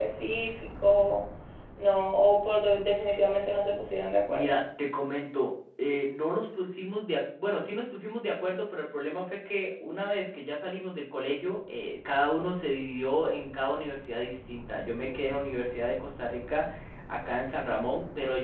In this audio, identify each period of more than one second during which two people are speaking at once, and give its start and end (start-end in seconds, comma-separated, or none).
none